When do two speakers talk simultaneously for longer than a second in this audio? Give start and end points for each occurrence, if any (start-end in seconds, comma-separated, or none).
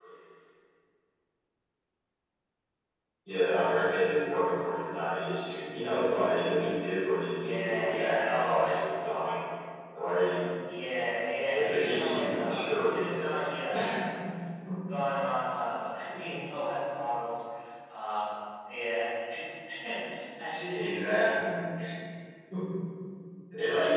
7.3-8.7, 11.5-13.4